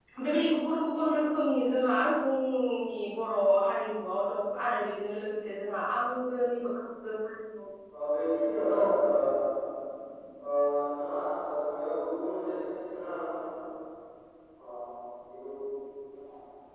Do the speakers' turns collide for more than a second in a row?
No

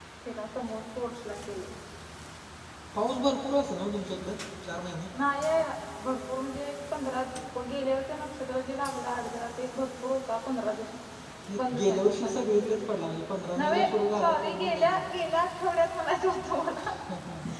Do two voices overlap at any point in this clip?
Yes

